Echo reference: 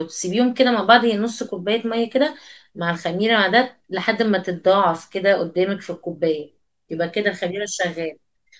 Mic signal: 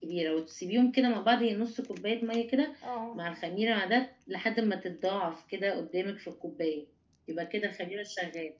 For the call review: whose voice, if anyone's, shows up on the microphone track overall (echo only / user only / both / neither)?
both